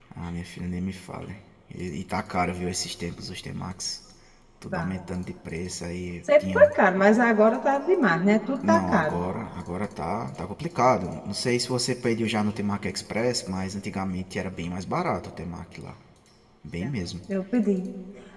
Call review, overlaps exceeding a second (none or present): none